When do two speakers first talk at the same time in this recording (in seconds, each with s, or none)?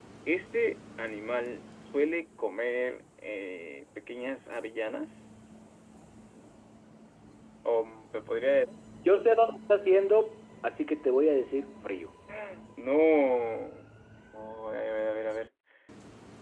none